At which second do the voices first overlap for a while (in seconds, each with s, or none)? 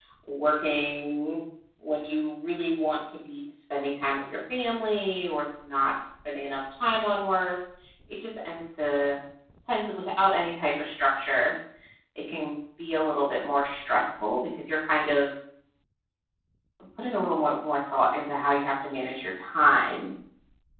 none